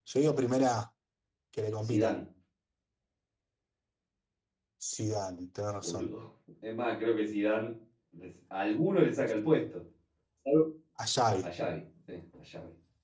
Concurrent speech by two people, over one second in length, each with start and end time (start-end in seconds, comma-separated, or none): none